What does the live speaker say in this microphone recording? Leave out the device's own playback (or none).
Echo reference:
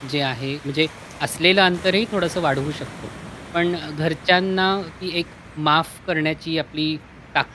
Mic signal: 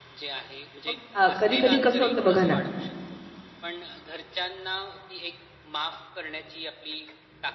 मग अ, कधी-कधी कसं होतं बघा ना,